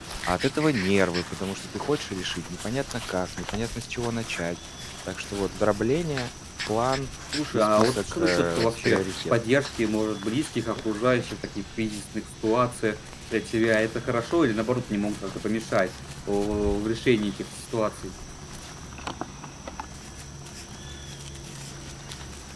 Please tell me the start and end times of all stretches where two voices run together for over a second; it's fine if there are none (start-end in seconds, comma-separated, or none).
7.5-9.3